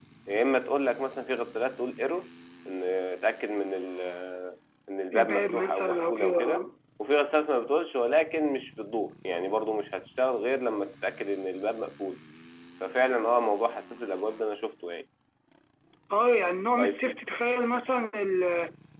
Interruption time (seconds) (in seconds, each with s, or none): 5.1 s